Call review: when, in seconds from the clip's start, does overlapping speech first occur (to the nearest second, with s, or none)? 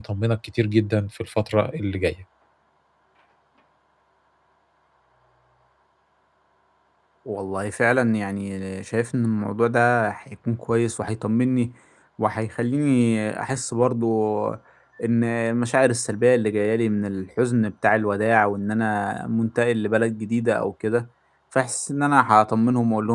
none